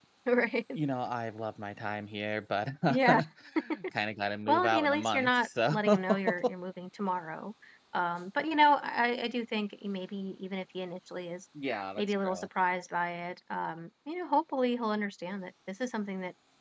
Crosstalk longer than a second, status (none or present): present